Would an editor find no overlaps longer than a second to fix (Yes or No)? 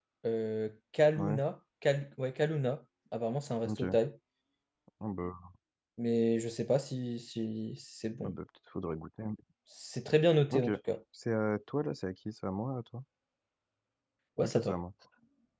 Yes